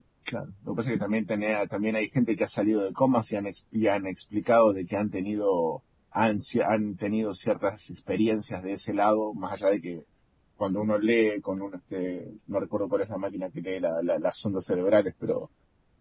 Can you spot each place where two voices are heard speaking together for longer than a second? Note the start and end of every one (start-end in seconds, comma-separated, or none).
none